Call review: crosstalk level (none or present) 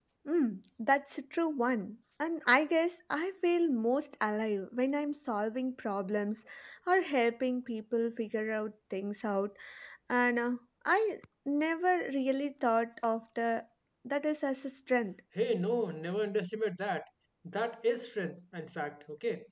none